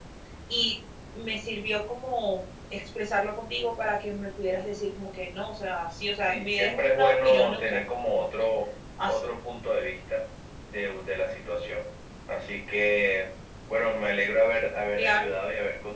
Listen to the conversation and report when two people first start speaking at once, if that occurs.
6.2 s

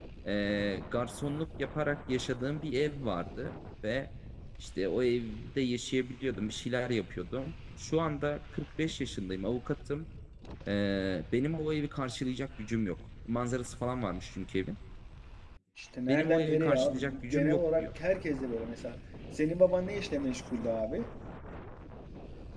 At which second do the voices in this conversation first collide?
16.1 s

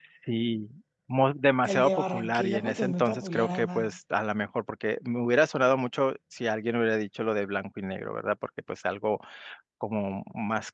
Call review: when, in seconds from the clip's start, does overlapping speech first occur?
1.6 s

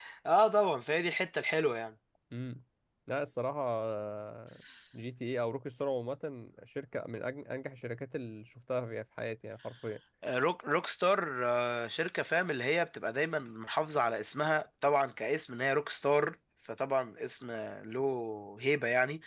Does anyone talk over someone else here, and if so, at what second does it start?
none

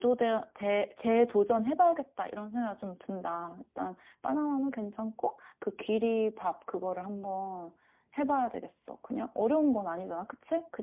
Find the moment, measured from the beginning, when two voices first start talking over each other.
none

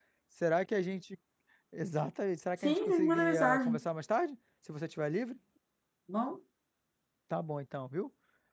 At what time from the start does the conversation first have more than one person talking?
2.6 s

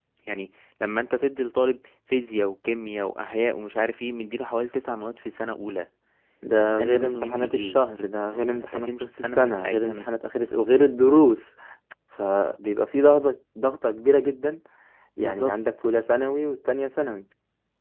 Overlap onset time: 6.6 s

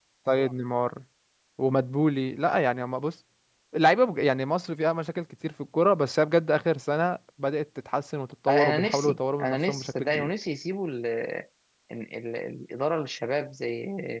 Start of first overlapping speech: 8.5 s

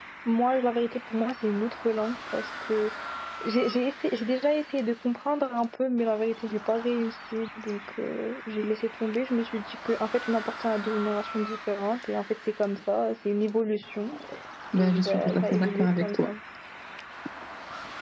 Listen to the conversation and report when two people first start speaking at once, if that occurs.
14.7 s

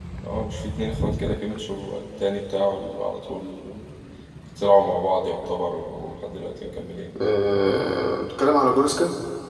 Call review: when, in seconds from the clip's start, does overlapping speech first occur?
none

